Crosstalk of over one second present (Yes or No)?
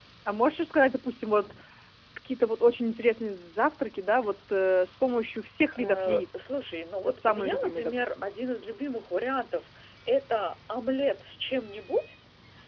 Yes